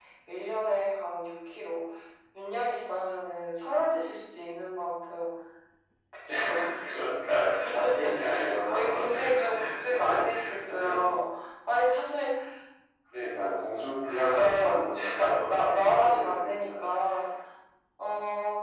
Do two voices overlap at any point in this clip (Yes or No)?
Yes